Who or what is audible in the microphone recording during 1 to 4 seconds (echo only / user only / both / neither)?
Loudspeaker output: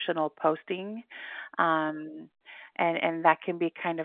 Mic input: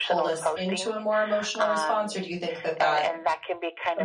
both